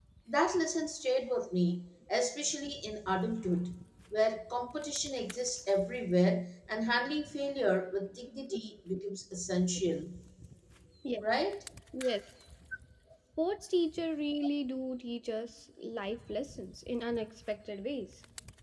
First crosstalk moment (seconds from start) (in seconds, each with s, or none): none